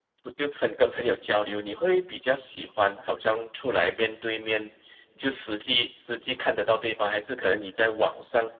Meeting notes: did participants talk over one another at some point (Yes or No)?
No